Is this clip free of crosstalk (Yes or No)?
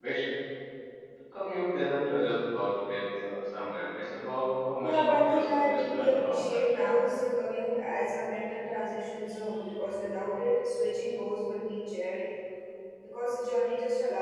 No